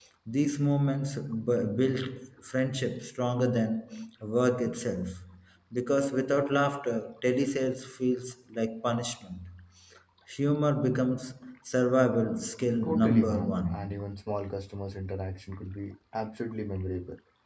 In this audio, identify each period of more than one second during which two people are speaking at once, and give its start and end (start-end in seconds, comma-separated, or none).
12.8-14.0